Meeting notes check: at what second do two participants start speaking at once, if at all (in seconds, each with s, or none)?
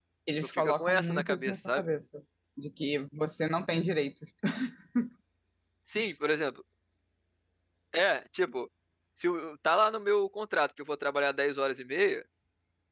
0.5 s